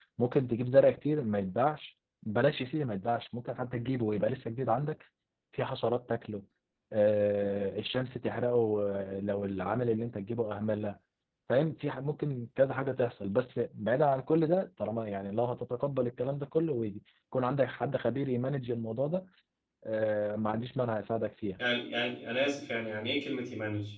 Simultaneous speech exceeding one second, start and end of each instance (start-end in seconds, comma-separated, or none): none